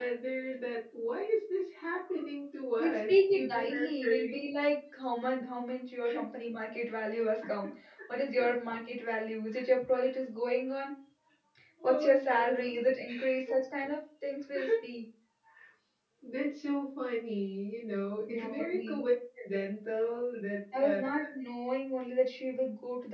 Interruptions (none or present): present